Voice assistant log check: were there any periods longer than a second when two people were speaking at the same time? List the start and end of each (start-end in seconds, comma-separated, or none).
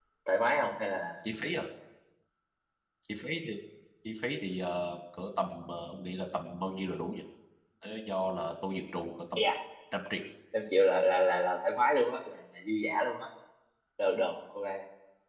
none